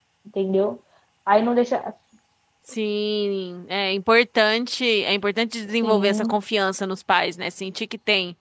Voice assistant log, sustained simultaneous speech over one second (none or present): none